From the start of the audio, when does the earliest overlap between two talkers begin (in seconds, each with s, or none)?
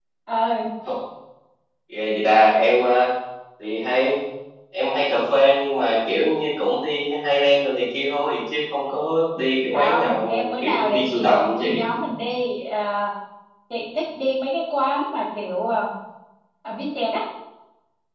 9.7 s